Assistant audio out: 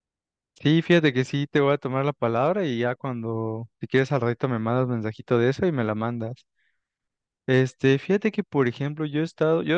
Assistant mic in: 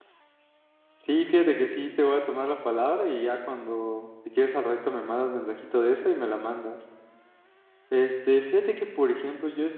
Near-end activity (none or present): none